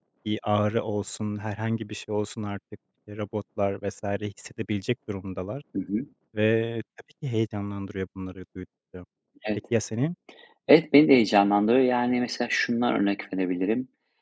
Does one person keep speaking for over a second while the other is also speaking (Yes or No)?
No